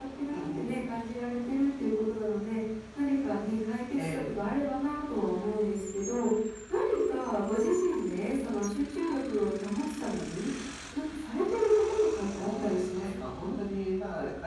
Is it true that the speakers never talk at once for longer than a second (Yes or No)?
No